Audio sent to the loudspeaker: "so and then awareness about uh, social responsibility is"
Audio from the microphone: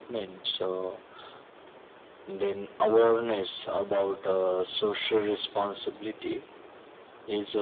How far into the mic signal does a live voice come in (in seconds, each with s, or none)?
none